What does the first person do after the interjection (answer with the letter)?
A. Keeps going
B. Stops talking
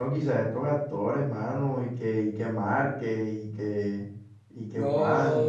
B